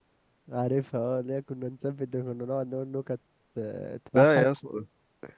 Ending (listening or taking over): taking over